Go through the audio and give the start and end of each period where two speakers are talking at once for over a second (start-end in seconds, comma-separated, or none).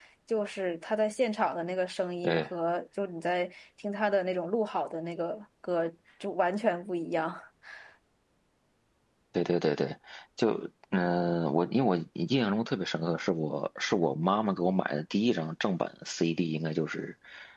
none